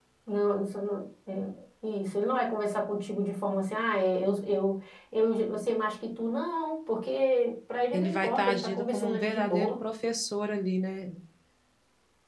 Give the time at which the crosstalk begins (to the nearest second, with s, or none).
8 s